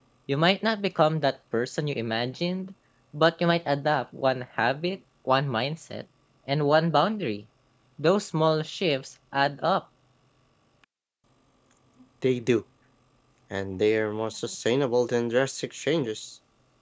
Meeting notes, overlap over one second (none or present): none